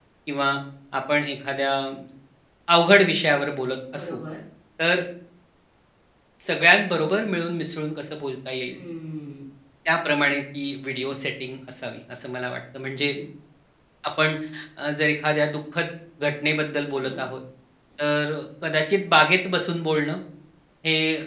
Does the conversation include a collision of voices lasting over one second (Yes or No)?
No